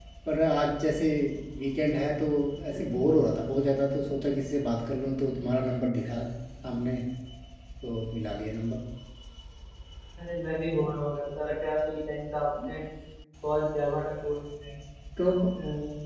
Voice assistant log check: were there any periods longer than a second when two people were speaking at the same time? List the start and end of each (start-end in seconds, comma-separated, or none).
none